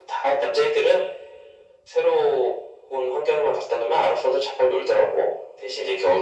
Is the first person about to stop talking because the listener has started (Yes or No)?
No